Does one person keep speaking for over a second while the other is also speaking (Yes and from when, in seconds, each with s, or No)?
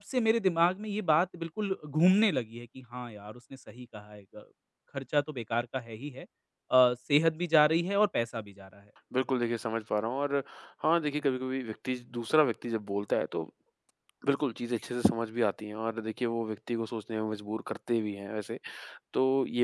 No